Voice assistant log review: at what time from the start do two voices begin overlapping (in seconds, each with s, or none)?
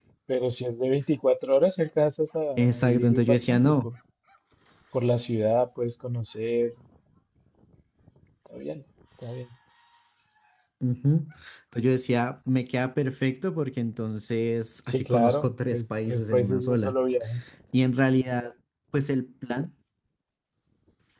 2.6 s